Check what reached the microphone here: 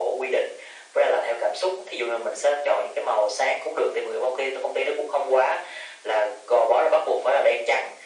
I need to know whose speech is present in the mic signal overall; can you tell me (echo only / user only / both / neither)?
echo only